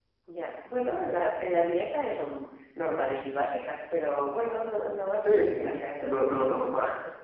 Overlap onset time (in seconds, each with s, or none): 5.2 s